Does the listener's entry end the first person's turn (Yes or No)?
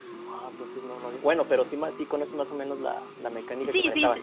Yes